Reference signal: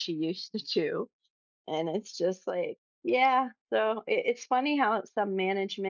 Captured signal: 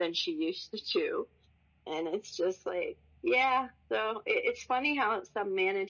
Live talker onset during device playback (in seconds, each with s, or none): none